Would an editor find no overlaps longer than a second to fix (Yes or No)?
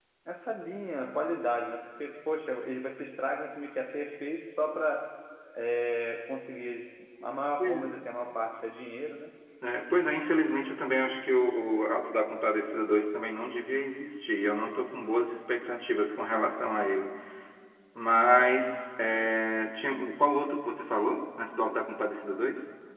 Yes